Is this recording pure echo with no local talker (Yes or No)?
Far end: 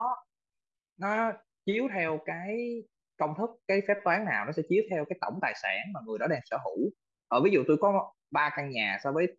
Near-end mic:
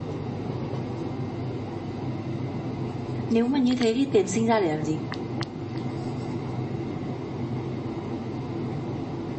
No